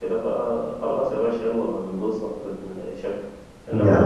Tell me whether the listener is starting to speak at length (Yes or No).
No